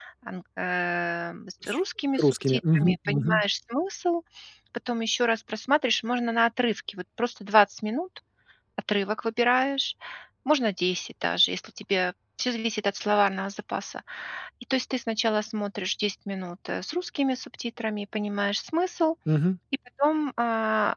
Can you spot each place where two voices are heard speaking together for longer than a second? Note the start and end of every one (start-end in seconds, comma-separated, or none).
2.2-3.4